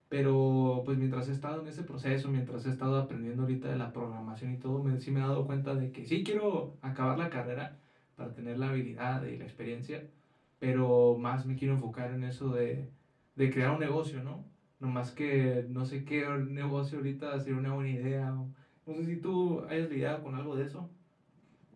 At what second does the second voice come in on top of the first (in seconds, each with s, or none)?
none